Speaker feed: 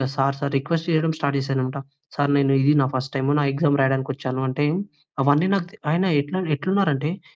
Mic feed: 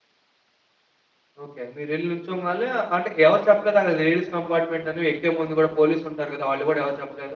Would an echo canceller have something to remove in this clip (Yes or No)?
No